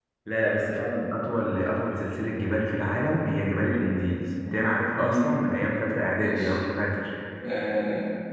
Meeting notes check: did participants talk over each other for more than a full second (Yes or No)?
No